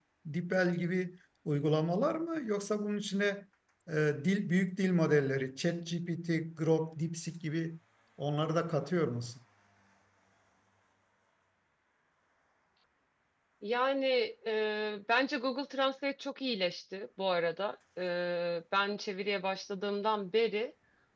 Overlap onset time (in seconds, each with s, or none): none